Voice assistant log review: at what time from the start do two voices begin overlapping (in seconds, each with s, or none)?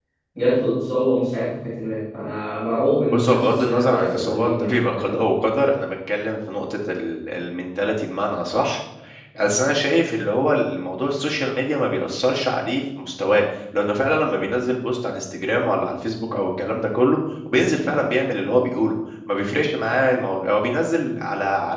3.1 s